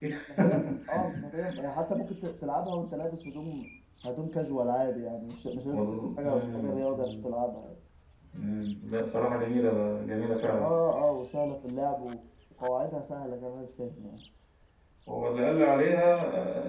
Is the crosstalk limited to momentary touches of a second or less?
No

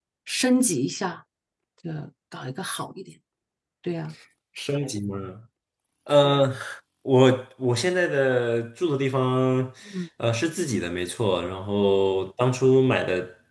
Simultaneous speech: No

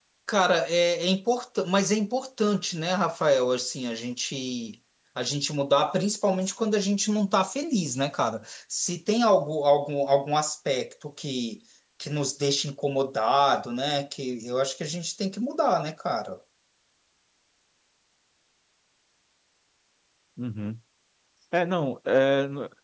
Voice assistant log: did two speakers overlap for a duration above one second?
No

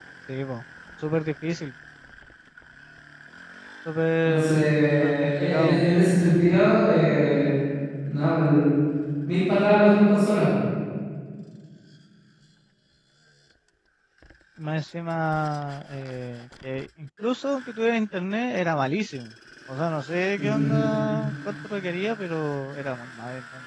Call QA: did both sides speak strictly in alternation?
No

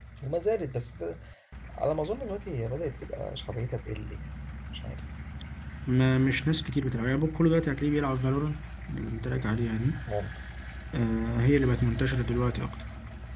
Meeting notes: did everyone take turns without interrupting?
Yes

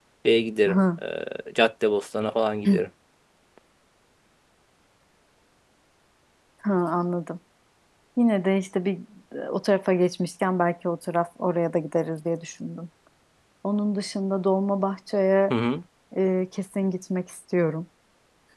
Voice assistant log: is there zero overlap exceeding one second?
Yes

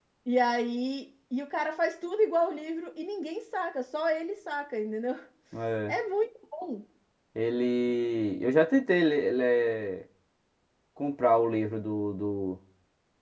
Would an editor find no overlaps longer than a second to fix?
Yes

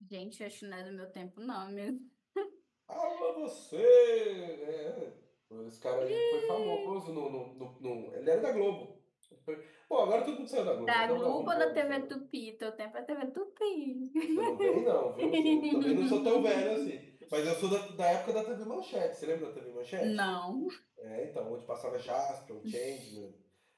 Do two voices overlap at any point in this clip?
Yes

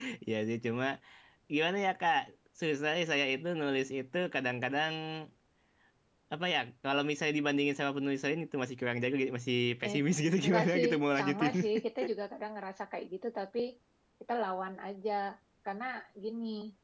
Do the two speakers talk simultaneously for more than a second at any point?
Yes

